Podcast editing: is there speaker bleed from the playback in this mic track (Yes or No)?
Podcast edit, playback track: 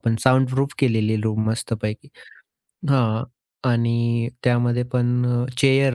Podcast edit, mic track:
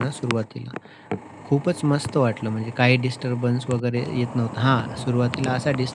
No